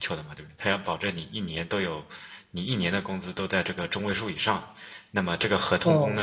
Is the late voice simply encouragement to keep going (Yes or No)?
Yes